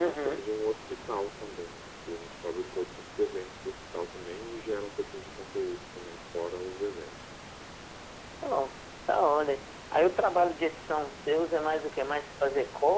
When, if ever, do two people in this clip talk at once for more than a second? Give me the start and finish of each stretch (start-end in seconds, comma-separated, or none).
none